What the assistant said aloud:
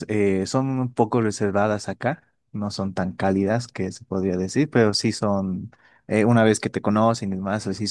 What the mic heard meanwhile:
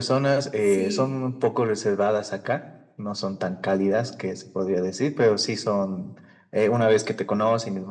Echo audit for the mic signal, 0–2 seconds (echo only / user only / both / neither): both